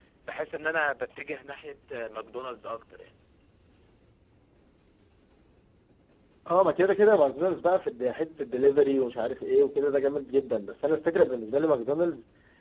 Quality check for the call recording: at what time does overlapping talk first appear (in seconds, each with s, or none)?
none